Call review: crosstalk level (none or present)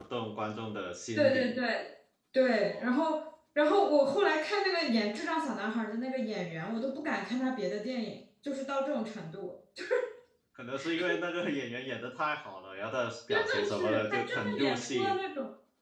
present